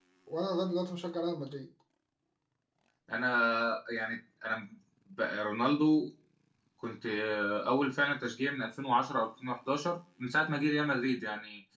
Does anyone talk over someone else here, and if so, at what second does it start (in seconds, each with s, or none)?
none